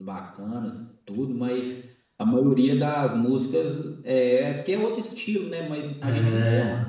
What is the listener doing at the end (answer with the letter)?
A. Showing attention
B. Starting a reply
A